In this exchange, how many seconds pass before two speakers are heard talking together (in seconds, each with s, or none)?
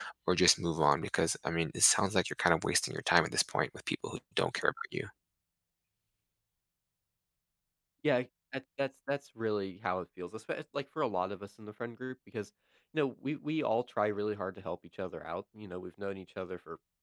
none